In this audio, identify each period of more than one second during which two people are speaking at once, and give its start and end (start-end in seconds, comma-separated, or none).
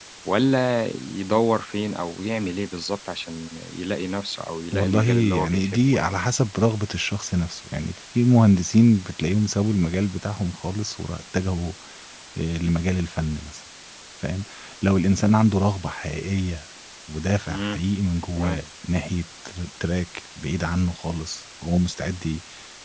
4.7-6.1